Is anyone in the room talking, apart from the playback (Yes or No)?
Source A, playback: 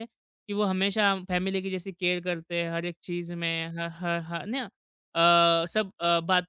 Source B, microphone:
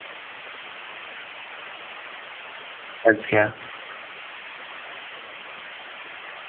Yes